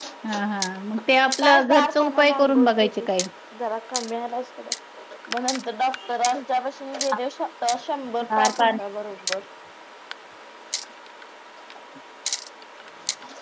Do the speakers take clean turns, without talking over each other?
No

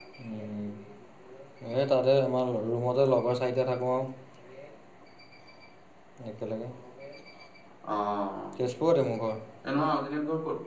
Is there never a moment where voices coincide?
Yes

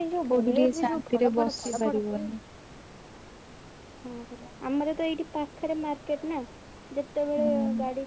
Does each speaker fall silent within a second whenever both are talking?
No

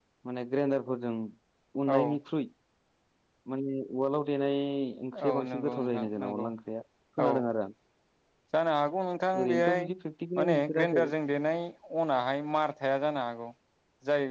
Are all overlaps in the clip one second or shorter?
No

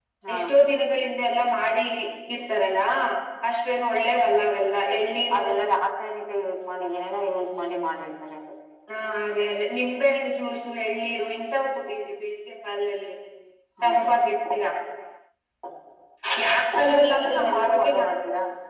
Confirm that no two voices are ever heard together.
No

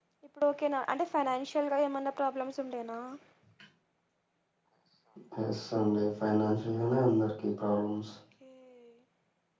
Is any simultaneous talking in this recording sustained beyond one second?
No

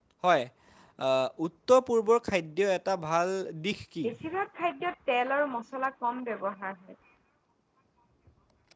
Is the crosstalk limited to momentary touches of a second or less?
Yes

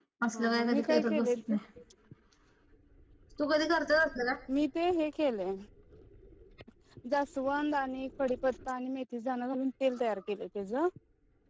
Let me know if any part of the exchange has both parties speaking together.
Yes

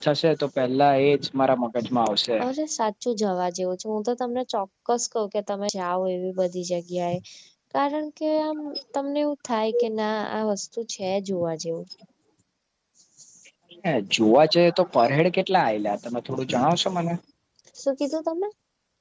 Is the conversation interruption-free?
Yes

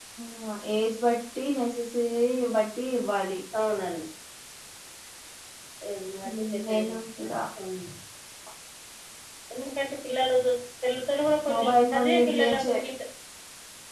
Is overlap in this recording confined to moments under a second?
No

